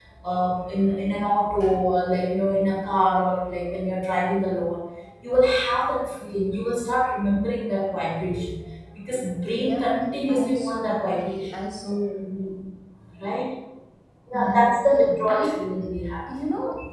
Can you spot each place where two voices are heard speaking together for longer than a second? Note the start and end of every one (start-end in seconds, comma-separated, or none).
10.3-11.6